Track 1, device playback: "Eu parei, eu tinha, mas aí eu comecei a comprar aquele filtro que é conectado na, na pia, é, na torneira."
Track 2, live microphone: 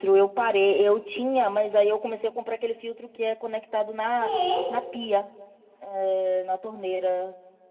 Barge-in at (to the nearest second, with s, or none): 4 s